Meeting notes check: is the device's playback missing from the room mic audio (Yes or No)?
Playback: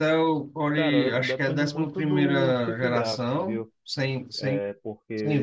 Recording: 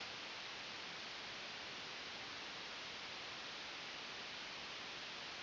Yes